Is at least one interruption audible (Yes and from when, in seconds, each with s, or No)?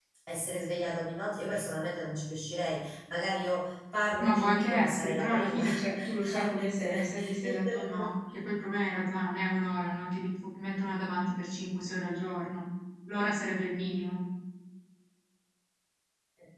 Yes, from 4.2 s